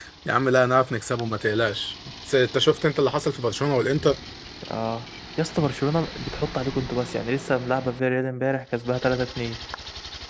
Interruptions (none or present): none